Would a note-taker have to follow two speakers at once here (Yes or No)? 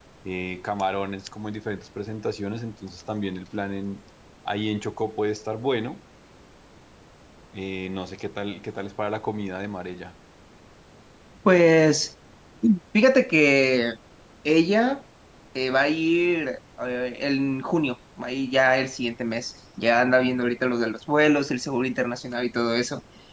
No